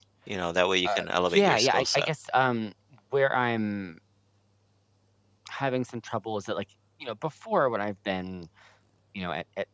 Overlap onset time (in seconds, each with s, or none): 0.8 s